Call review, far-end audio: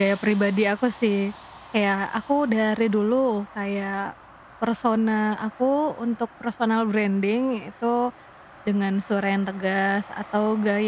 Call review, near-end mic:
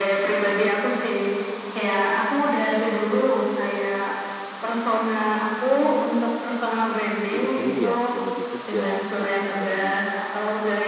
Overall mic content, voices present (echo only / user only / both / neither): both